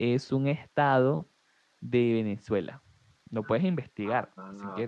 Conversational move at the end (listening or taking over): taking over